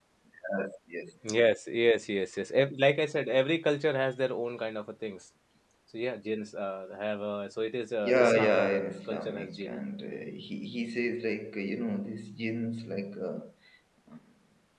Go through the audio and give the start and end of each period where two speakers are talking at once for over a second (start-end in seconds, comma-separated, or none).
8.0-9.8